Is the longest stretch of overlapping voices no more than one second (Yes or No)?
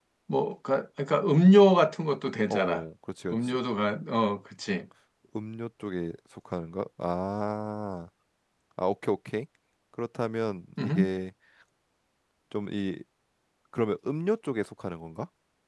Yes